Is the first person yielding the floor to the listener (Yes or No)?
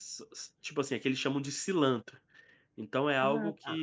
No